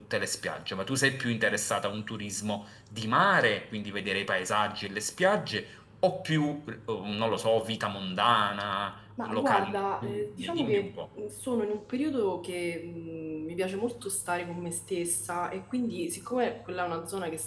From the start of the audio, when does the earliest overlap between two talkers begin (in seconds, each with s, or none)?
9.2 s